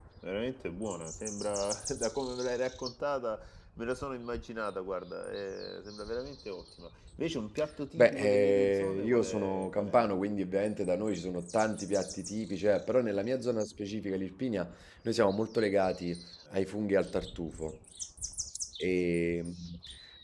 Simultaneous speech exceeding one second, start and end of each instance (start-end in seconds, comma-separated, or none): 8.0-10.1